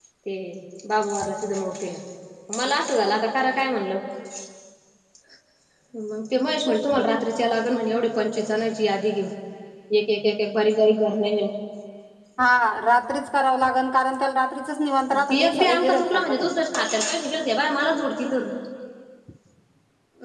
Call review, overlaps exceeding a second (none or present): present